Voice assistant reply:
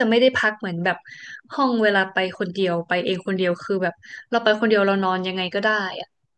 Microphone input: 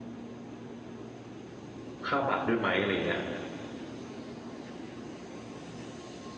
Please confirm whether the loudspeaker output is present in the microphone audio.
No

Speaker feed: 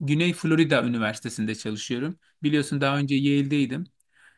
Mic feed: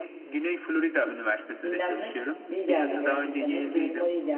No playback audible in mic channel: No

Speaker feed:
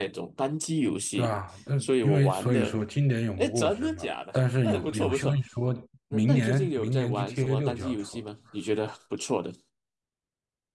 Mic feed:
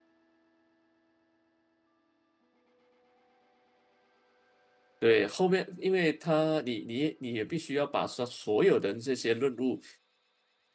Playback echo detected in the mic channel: No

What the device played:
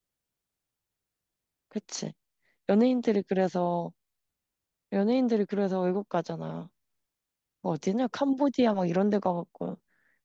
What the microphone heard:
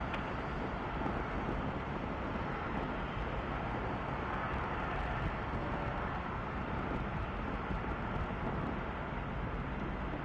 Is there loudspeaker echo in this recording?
No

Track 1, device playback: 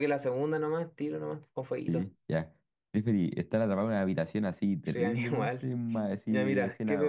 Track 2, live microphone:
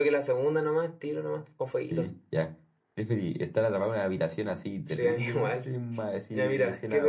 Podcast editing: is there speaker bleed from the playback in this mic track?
Yes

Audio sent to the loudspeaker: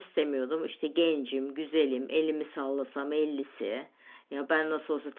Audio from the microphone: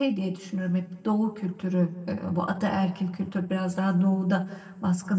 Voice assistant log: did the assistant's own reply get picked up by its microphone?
No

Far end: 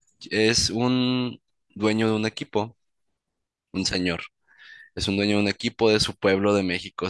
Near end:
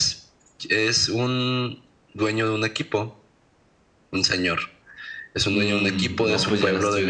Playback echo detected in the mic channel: Yes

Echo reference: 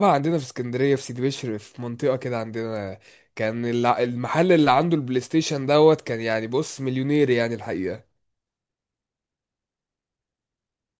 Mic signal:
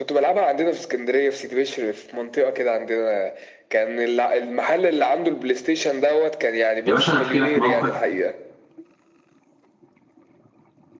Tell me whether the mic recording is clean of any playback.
No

